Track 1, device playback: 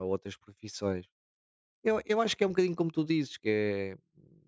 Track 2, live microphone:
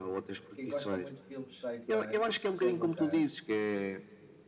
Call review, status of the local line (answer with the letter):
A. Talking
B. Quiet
A